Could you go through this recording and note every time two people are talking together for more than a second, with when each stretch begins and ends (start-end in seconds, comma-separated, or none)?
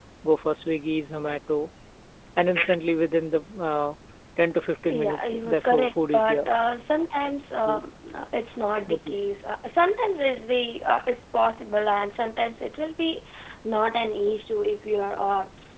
4.9-6.5